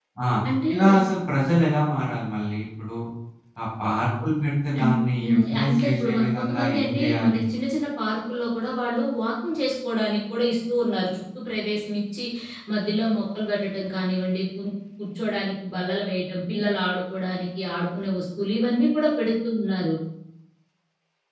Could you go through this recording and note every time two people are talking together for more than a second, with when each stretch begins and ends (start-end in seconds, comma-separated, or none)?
4.8-7.4